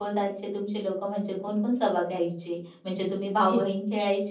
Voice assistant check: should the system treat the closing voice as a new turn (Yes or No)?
No